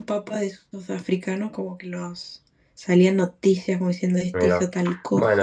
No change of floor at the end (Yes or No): No